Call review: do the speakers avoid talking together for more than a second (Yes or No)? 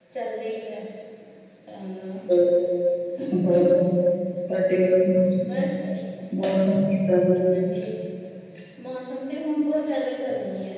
Yes